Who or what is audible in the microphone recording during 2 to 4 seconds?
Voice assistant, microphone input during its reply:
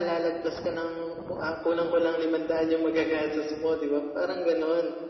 echo only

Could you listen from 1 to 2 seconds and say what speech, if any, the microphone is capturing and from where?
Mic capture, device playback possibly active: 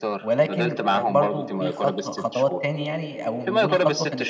both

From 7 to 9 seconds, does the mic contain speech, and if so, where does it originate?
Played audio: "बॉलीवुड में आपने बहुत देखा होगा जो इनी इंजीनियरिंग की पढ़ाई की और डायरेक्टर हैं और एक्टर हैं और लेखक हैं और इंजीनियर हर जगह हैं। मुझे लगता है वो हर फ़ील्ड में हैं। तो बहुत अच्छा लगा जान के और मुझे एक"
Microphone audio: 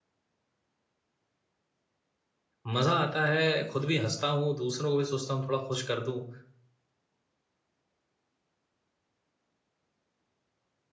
neither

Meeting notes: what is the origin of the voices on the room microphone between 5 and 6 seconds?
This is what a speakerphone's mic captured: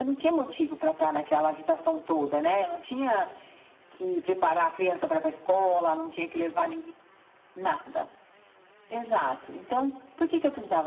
echo only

